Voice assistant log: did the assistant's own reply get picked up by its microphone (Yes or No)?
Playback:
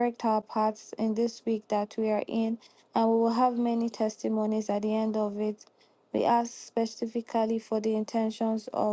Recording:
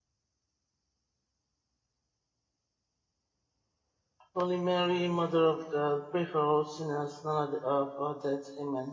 No